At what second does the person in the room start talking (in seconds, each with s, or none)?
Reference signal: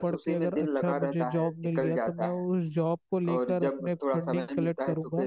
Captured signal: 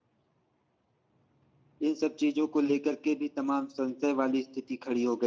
1.9 s